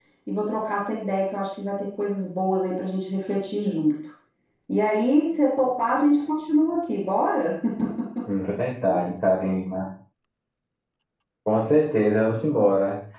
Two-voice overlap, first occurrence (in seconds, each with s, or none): none